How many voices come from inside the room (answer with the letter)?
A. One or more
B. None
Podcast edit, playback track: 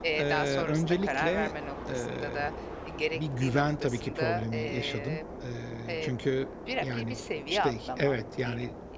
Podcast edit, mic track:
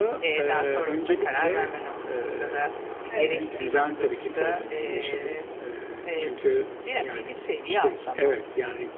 A